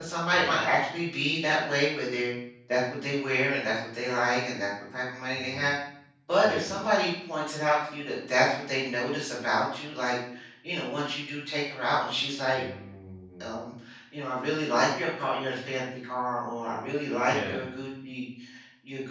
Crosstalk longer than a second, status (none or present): none